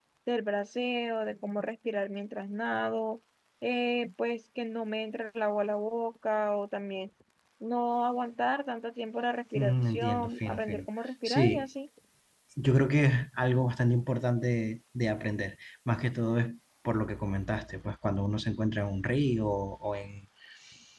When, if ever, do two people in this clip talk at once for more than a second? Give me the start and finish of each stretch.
9.6-10.8

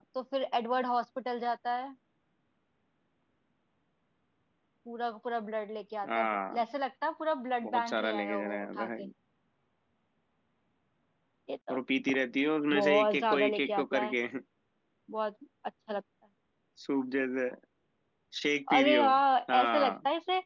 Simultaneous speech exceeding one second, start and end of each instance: 7.6-9.0, 12.7-14.2

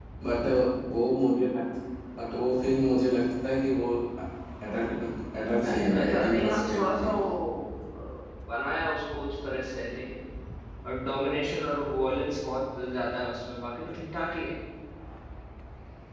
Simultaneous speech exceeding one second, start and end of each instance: 5.6-7.3

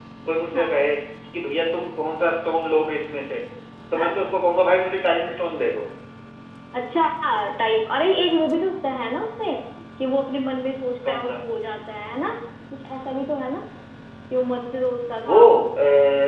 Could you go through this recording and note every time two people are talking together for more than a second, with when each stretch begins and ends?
none

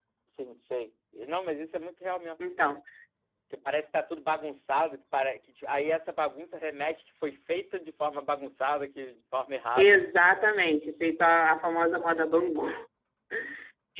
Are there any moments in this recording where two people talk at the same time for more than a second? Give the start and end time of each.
none

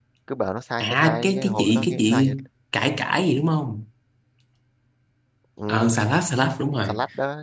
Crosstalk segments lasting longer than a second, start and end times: 0.8-2.3

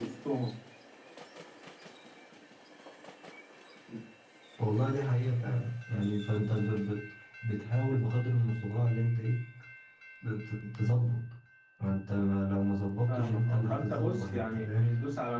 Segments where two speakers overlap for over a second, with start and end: 13.1-14.9

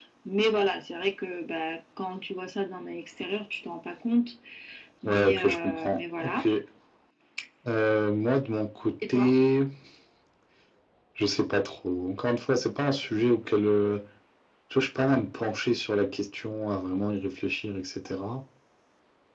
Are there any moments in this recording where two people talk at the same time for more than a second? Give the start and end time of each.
5.0-6.4

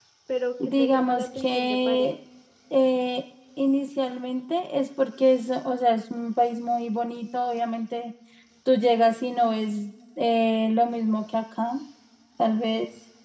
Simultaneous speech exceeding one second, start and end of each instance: 0.7-2.1

